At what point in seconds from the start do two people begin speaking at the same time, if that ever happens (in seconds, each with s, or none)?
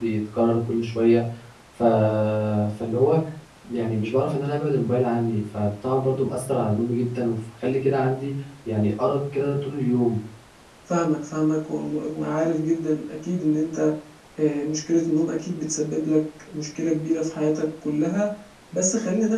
none